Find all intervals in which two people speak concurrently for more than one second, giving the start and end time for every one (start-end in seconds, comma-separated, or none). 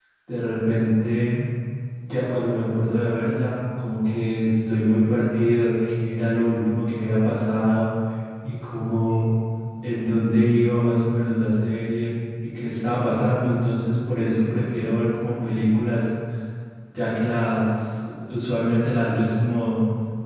none